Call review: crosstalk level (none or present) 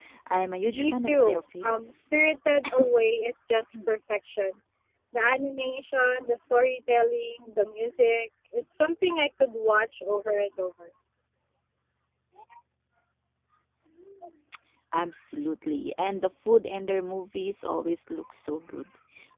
present